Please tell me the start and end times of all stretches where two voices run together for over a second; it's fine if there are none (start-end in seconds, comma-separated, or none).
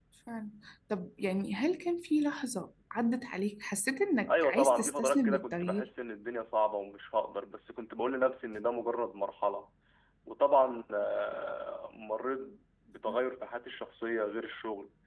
4.3-5.9